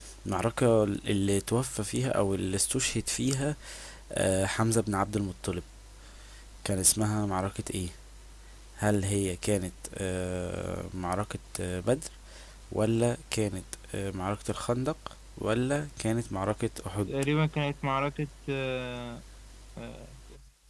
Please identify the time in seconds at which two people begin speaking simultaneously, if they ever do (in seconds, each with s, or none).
none